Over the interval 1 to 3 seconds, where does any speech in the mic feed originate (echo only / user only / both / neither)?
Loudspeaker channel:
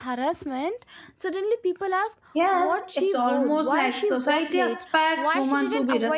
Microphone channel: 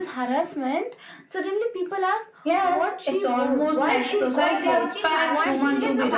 echo only